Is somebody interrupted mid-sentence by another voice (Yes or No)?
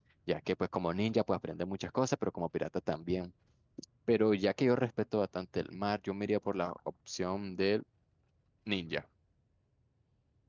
No